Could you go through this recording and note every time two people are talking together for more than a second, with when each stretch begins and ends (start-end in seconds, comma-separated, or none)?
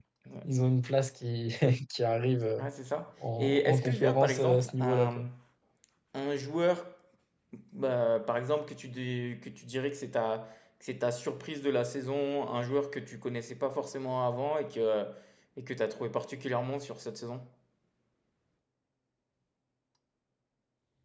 3.4-5.2